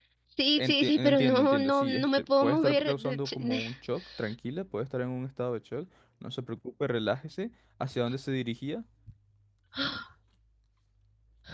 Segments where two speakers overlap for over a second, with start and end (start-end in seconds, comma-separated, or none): 0.6-3.6